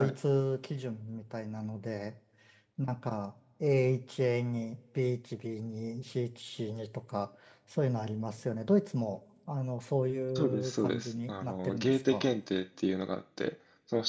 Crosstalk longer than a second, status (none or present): present